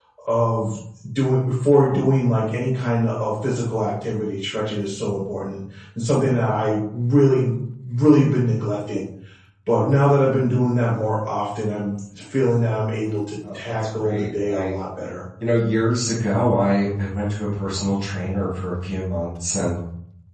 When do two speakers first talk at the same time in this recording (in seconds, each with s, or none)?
13.4 s